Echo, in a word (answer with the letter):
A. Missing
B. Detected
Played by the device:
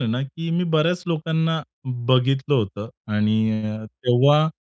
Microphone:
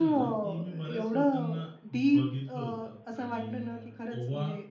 B